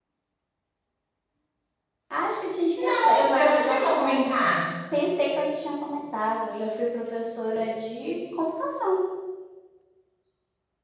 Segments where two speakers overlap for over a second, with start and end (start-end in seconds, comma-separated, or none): 2.8-4.2